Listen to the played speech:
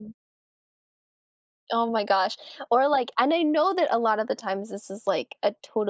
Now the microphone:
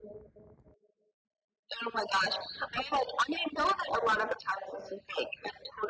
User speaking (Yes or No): No